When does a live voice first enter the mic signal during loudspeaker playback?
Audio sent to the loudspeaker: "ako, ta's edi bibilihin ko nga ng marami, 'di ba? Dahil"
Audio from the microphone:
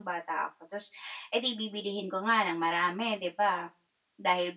none

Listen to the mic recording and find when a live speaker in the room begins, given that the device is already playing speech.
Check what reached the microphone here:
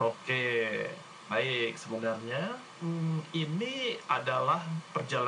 none

